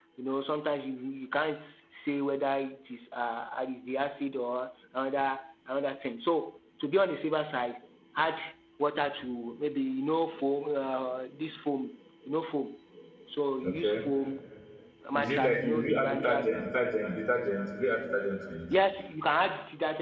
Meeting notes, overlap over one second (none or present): present